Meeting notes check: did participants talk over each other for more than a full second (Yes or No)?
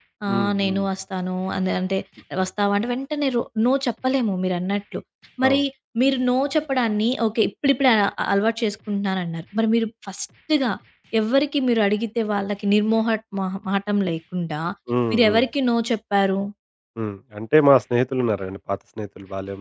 No